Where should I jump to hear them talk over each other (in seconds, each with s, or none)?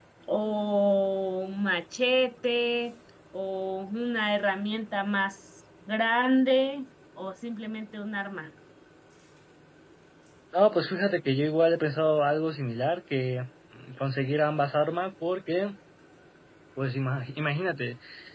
none